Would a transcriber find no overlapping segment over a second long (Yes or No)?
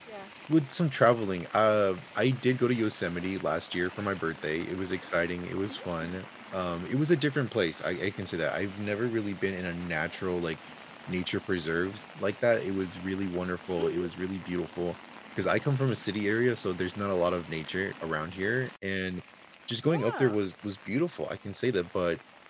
Yes